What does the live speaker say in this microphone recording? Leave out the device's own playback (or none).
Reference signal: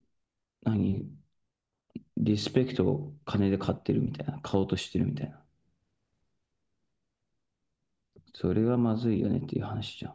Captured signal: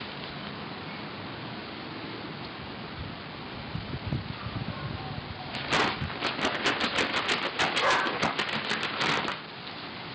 none